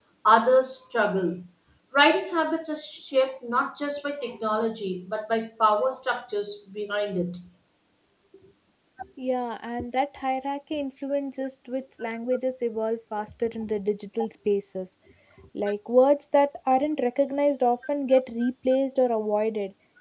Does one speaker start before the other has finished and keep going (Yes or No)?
No